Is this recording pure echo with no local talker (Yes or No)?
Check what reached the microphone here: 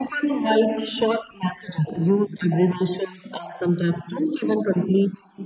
Yes